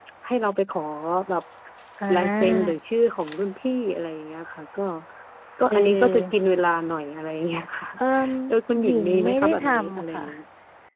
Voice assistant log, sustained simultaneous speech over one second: present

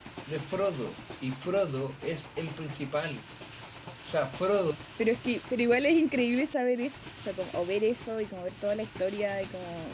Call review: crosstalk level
none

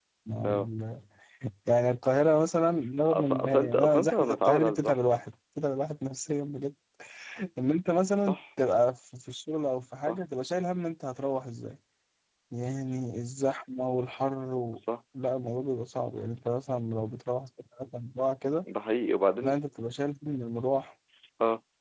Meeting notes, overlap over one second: present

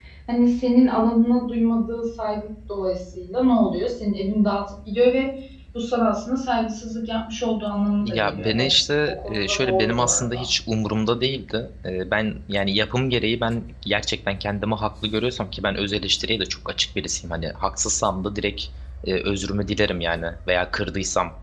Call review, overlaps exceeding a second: present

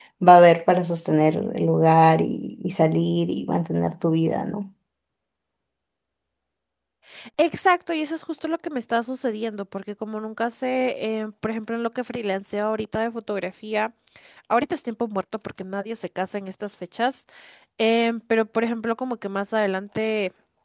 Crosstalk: none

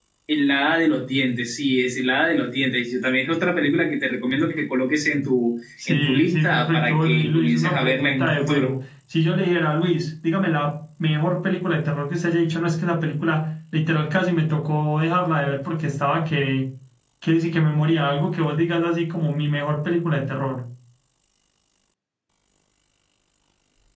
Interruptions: present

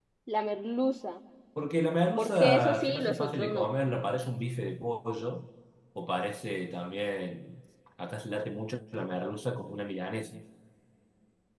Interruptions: present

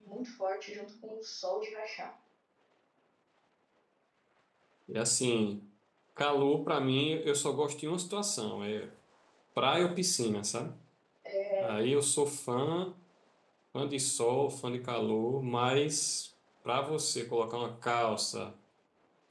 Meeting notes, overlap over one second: none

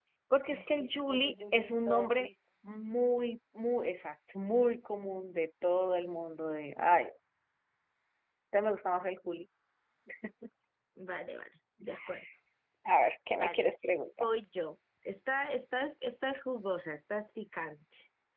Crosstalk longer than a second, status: present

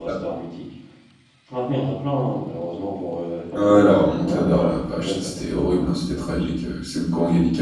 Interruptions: present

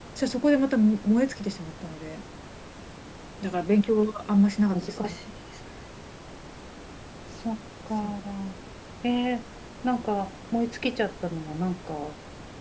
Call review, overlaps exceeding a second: none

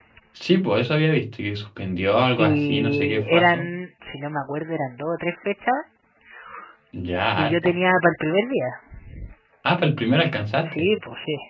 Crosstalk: present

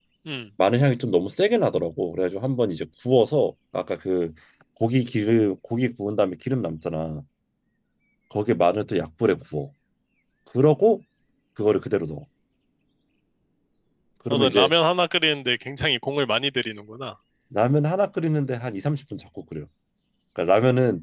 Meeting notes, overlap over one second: none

